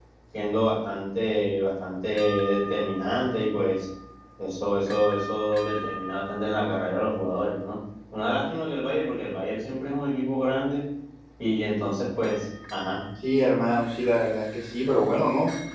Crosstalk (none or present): none